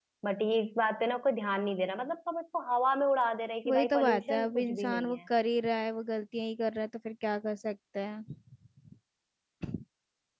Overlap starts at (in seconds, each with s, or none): 3.6 s